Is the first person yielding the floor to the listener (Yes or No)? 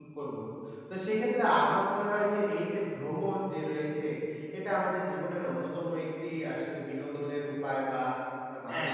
No